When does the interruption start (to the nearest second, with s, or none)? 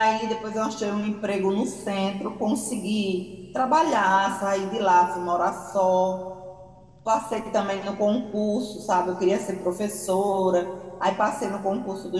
none